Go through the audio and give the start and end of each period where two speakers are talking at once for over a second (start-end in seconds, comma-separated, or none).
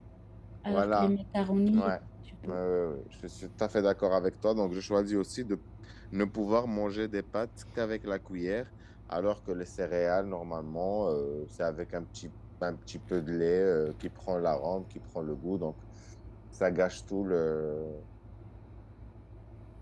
none